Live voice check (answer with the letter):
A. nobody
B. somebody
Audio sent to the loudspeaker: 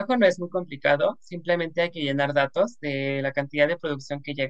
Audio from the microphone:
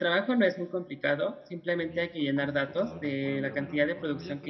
B